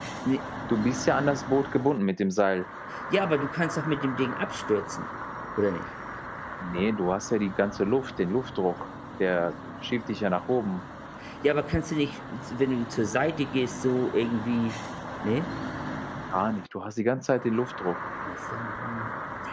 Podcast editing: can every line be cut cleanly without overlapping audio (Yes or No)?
Yes